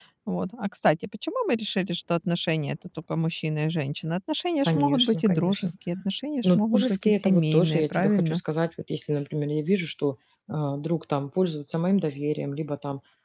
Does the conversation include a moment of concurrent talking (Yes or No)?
Yes